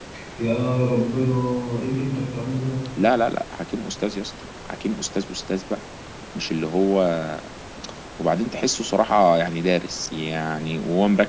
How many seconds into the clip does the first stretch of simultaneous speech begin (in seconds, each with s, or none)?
none